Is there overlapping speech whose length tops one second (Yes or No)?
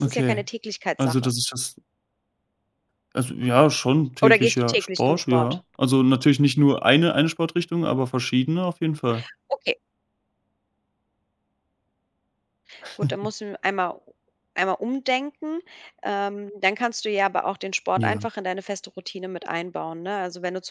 Yes